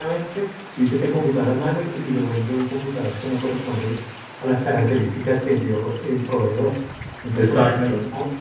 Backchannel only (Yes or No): Yes